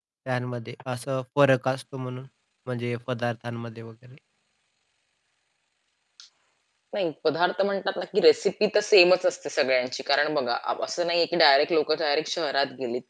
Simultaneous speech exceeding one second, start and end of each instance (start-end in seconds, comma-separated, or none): none